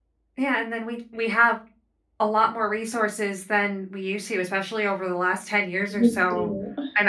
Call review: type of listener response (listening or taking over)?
listening